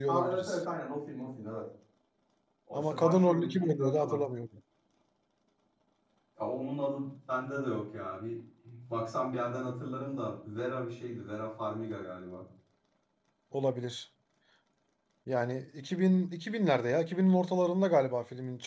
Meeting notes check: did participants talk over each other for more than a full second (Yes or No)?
Yes